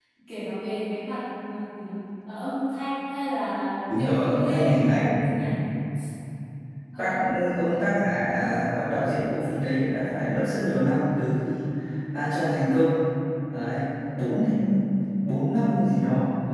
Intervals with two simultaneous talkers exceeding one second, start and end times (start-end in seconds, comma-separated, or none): 3.9-5.2